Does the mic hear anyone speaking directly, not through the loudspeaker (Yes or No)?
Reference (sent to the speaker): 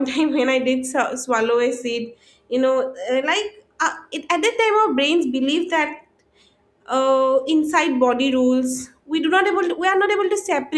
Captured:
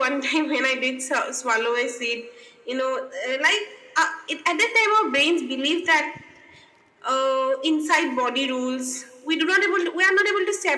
No